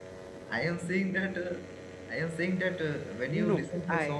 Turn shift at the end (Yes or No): No